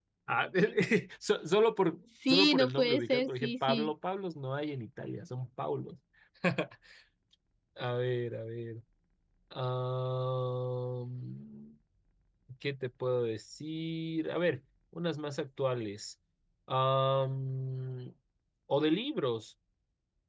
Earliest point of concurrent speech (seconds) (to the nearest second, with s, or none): 2 s